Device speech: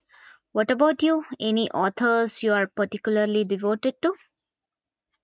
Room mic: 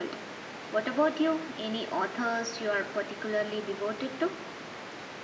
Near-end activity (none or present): none